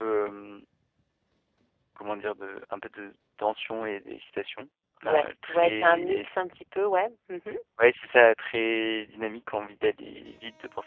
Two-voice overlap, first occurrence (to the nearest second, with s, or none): 5 s